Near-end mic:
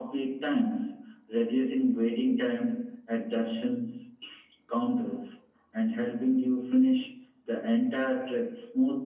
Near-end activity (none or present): none